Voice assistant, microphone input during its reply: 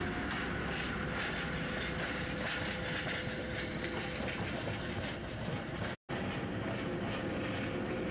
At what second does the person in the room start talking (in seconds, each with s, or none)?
none